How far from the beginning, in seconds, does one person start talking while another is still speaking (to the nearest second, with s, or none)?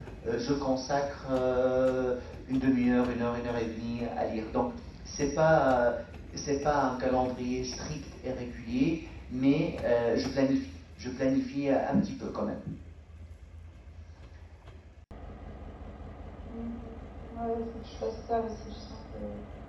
none